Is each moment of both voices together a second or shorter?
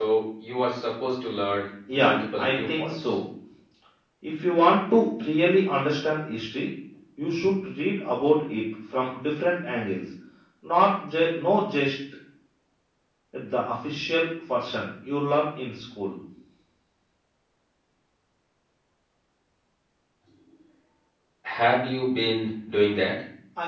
No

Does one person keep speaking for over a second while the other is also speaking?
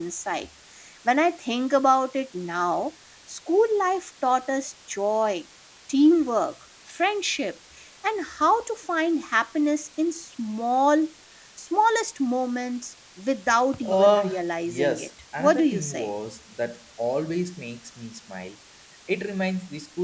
Yes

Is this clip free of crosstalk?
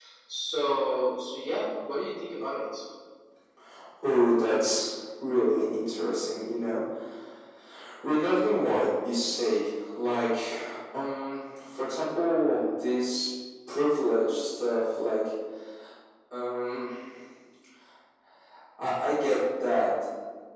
Yes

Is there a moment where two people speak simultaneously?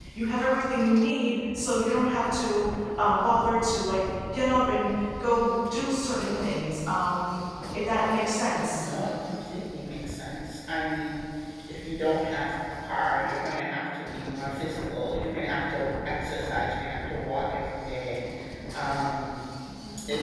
No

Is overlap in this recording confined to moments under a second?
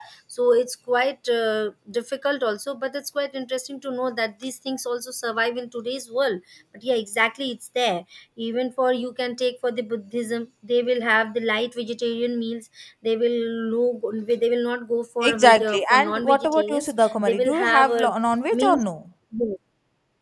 No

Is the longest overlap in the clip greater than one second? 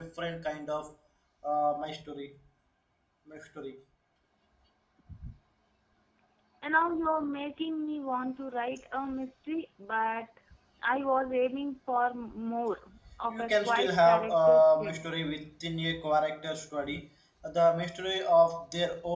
Yes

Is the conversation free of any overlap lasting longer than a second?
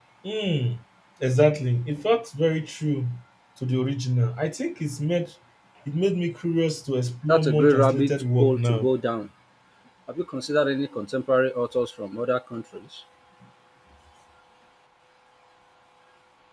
No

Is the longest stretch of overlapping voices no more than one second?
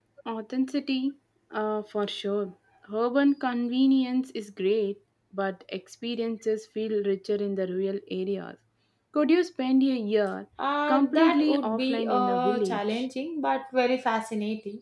No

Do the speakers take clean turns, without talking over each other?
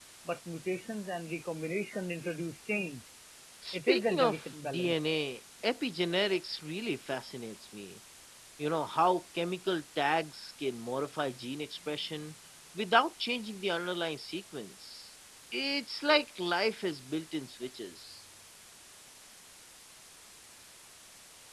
No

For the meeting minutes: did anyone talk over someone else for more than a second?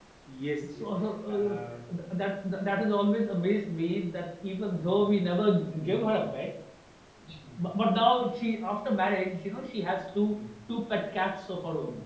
No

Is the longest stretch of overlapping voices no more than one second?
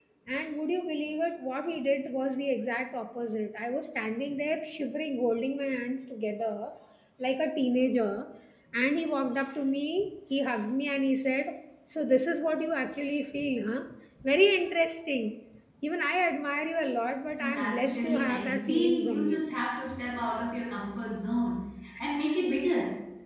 No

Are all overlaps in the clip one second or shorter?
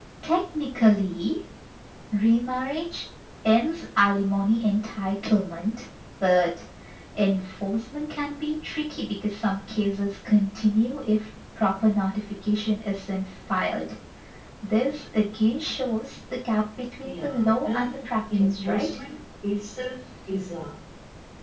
No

